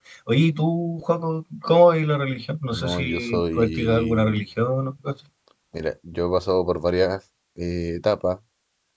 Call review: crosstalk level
present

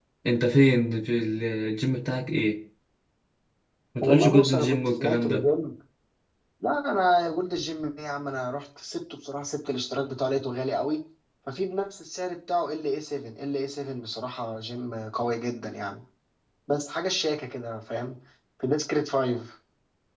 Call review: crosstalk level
present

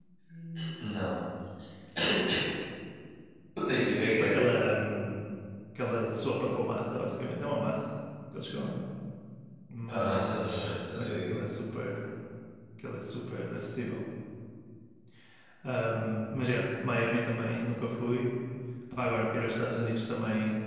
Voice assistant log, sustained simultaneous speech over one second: present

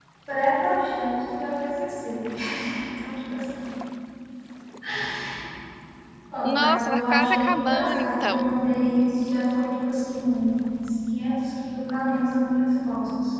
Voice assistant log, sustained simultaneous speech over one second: present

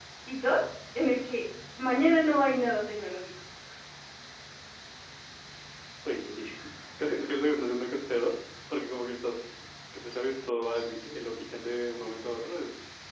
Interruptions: none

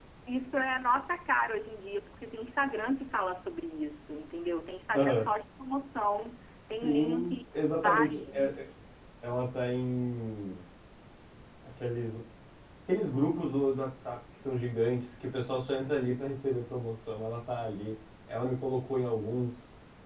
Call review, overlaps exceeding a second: present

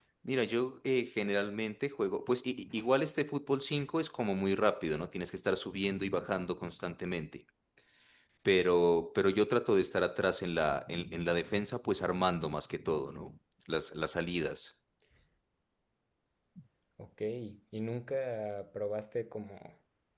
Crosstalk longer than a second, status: none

